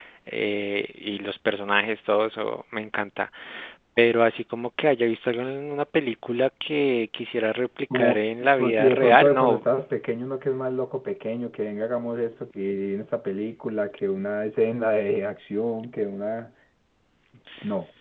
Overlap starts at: 7.9 s

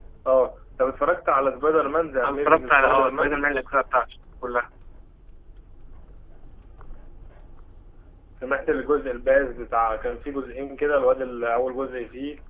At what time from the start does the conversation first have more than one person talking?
2.2 s

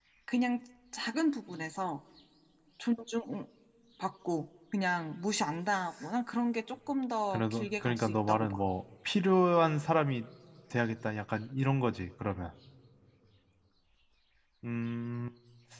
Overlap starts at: 7.3 s

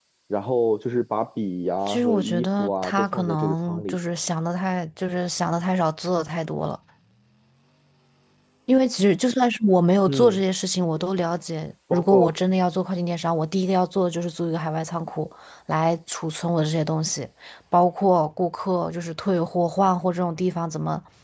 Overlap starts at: 1.9 s

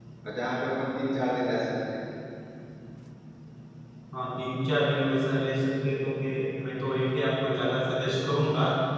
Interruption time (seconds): none

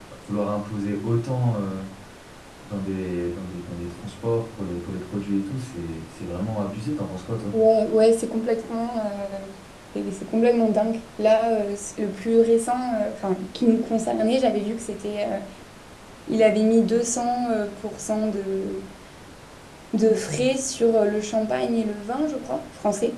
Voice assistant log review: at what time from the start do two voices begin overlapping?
none

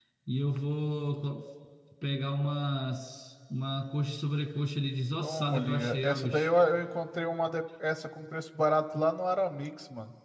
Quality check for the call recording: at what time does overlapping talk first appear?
5.2 s

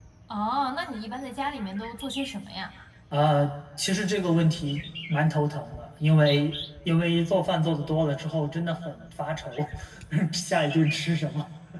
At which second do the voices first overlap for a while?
none

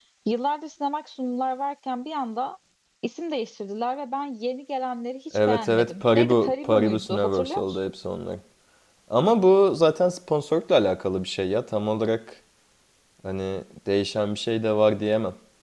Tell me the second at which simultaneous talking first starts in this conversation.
5.3 s

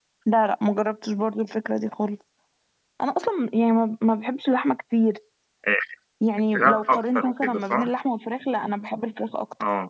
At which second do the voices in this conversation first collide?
6.5 s

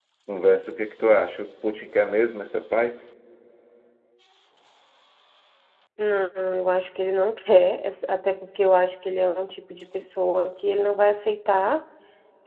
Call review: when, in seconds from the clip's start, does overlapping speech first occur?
none

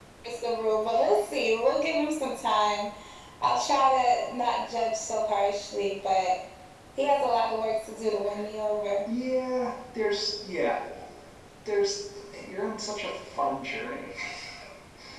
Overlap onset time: none

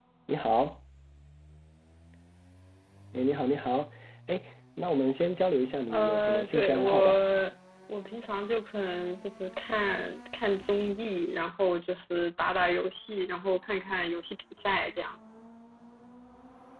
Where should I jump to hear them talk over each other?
5.9 s

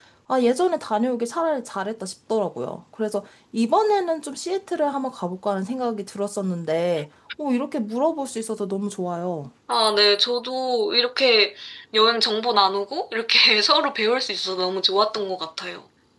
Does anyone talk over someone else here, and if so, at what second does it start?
none

